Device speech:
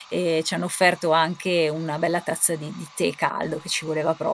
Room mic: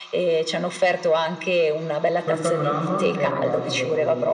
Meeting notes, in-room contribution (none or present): present